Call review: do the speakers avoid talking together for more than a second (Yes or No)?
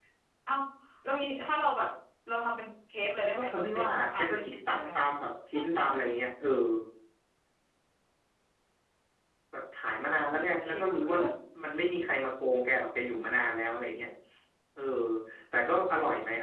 No